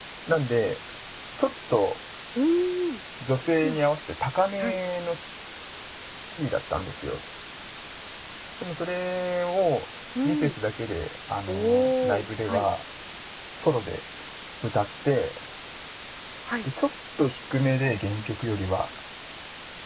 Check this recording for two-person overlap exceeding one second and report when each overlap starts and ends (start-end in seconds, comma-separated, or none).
11.5-12.7